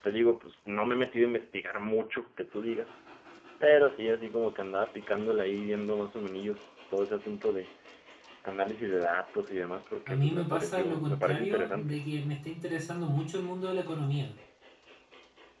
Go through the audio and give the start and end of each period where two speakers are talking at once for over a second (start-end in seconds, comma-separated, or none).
10.1-12.0